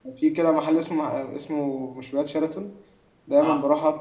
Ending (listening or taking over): listening